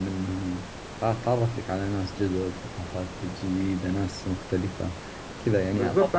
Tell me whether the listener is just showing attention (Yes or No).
No